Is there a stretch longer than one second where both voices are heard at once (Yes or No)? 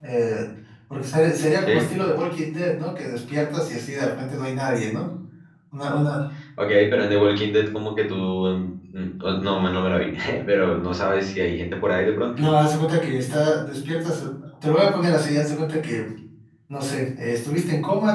No